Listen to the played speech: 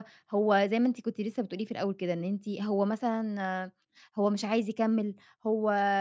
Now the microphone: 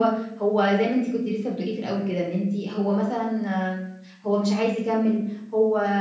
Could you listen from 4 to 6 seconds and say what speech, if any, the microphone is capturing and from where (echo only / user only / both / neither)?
echo only